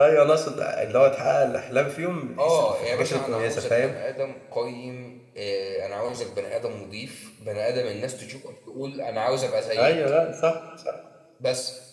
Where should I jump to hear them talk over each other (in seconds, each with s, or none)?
2.4 s